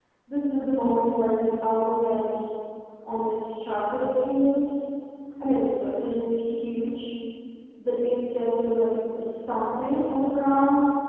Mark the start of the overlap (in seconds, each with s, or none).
none